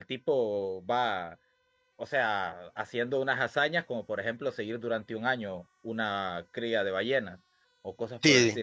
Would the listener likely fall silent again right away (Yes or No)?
No